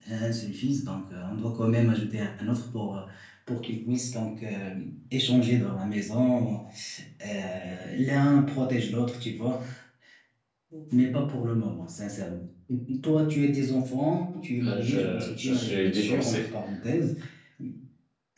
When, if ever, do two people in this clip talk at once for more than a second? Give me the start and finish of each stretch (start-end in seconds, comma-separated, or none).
14.6-16.4